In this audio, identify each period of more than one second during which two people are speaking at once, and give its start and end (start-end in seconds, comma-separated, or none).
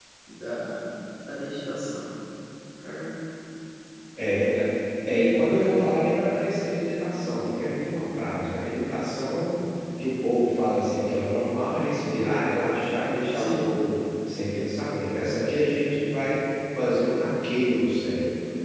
none